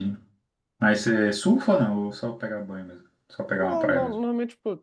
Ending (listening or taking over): taking over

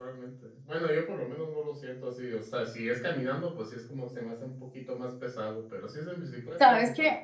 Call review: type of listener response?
taking over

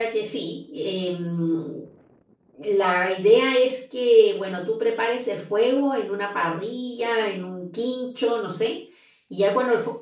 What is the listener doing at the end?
listening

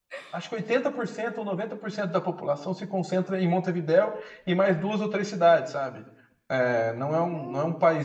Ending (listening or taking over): listening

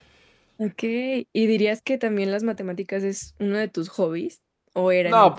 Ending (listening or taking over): taking over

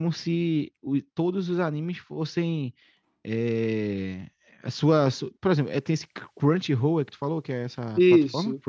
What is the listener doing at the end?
taking over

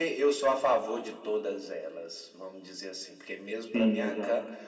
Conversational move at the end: listening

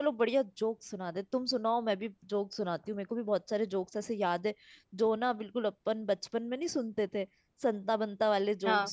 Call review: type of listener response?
listening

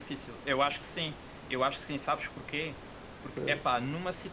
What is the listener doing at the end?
listening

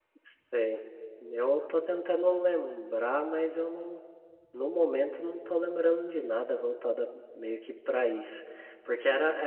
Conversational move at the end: listening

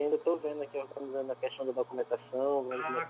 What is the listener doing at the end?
taking over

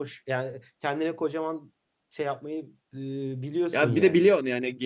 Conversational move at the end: taking over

